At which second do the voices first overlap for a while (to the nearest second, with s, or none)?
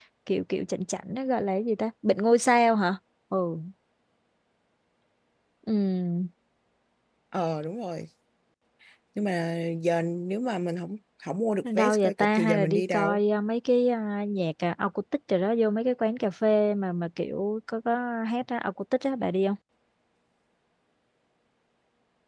12 s